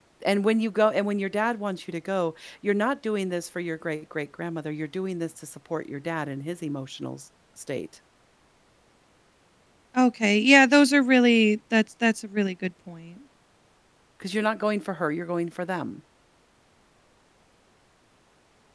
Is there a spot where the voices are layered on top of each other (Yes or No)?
No